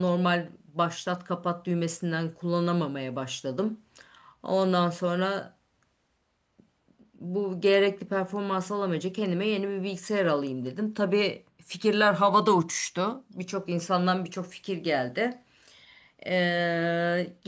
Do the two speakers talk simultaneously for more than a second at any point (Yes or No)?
No